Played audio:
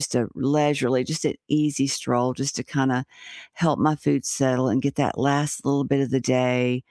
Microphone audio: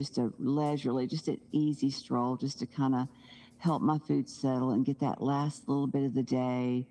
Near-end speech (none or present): none